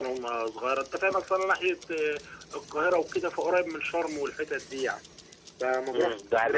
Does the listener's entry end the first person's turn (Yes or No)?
Yes